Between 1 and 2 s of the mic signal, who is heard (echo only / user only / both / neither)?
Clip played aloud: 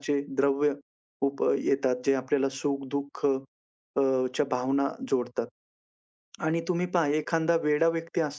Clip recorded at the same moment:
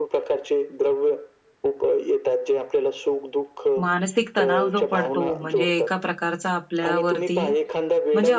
echo only